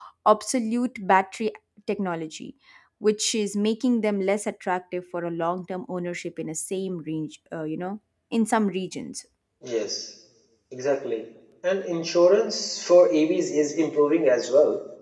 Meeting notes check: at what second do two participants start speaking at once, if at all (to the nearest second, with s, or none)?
none